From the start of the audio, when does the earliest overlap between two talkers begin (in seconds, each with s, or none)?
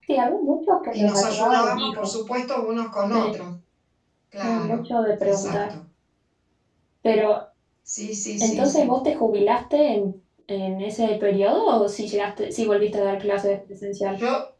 0.9 s